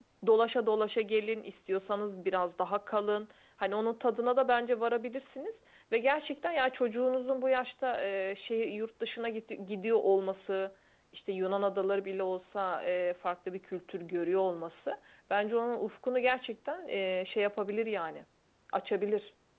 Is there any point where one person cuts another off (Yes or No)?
No